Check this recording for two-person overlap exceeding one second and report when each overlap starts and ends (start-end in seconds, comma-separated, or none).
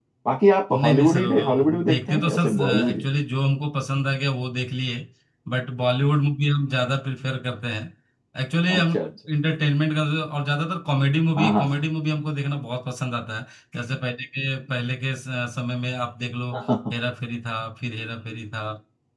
0.7-3.0